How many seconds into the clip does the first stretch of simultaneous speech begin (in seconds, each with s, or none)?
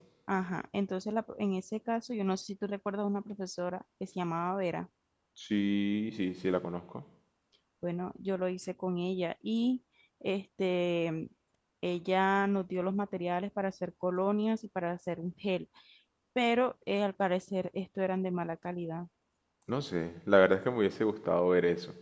none